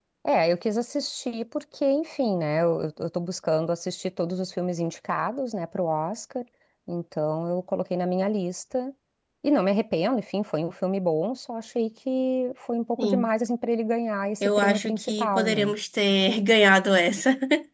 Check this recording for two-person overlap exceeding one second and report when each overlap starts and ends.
14.4-15.7

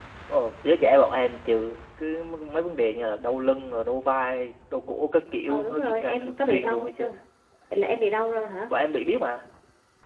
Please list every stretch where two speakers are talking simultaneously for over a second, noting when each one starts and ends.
5.5-7.0

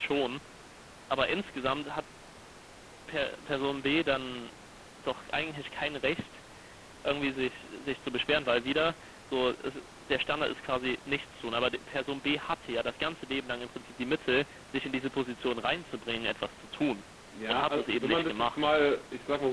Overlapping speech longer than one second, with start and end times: 17.5-18.7

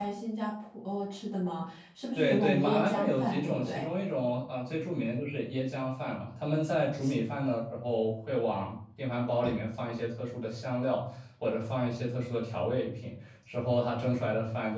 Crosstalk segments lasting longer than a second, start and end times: 2.2-3.8

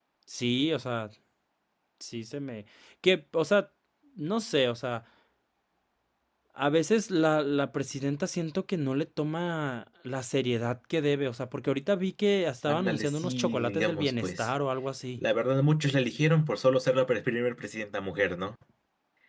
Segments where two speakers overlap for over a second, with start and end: 12.7-14.5

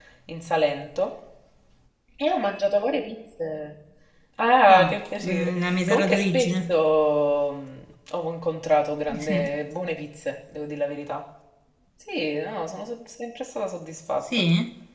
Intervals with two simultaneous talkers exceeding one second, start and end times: 4.8-6.7

